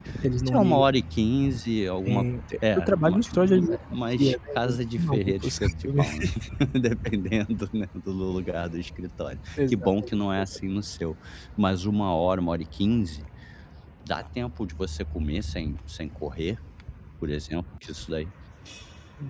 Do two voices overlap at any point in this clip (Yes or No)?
Yes